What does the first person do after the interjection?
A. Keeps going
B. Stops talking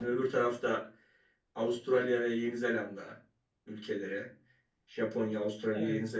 A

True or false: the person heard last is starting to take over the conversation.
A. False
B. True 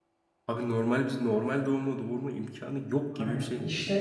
B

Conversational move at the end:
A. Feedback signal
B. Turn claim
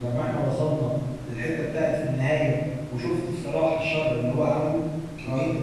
B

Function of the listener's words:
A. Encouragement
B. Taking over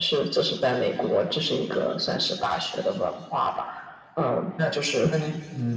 B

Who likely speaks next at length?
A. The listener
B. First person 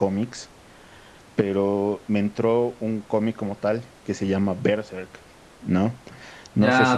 A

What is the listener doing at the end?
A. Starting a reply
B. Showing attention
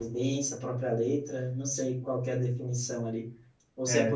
B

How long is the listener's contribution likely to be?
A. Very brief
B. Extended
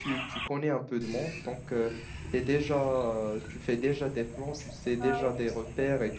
A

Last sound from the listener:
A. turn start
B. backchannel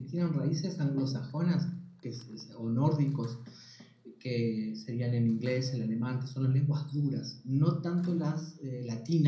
B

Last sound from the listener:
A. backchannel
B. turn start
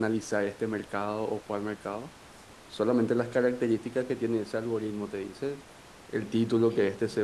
A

